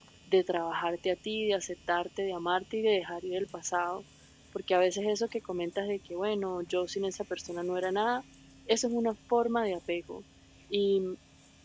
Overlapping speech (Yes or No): No